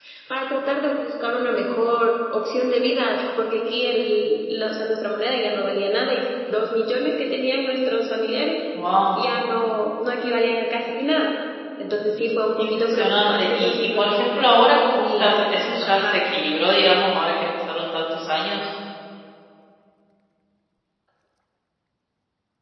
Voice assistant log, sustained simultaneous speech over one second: present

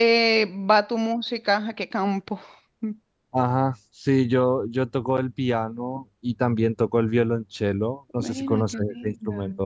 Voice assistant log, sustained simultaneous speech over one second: present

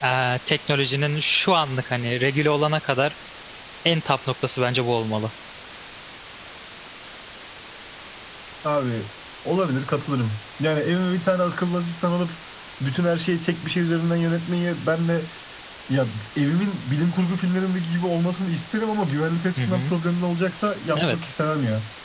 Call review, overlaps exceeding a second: none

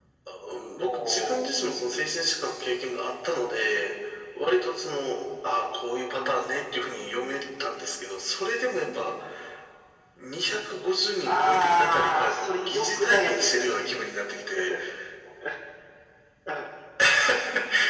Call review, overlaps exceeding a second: present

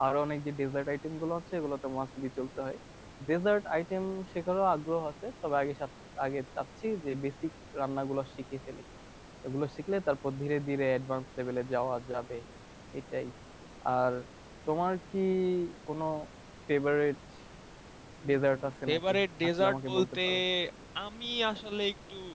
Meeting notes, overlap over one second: present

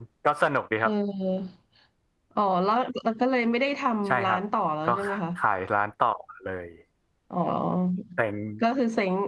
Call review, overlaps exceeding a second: none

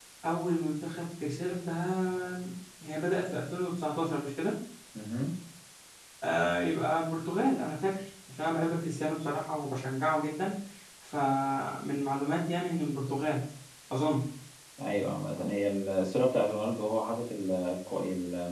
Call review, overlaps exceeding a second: none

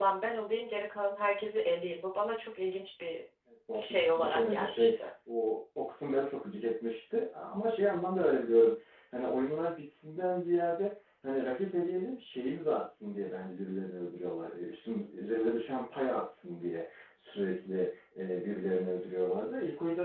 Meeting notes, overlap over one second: present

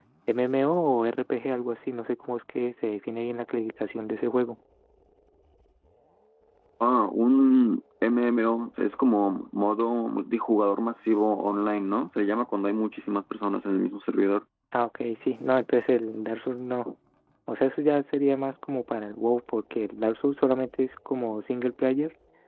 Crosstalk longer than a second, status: none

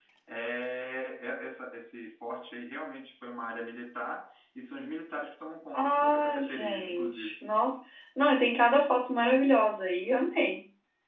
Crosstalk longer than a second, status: present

